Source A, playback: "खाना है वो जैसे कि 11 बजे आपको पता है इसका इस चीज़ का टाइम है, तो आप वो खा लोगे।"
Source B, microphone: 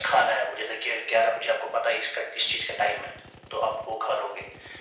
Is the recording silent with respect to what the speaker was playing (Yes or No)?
No